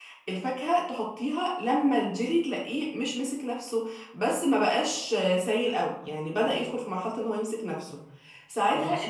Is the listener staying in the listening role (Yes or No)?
Yes